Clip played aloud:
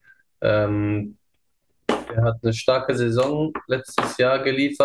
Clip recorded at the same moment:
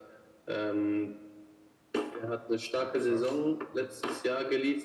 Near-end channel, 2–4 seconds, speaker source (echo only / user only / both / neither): both